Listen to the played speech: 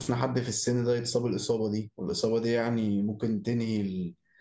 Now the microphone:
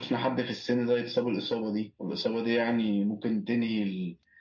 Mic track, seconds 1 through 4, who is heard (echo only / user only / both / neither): echo only